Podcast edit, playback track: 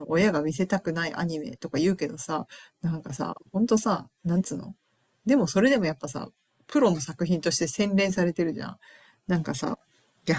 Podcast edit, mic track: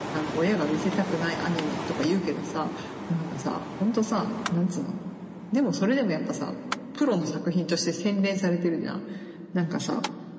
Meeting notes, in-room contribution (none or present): none